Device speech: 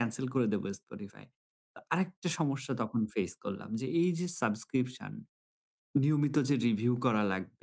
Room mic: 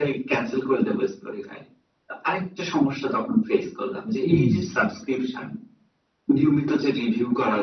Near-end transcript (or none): হুম, হুম।